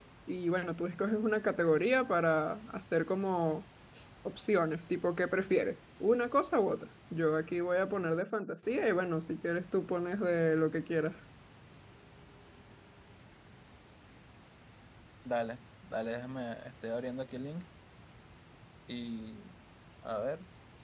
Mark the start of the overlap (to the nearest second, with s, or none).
none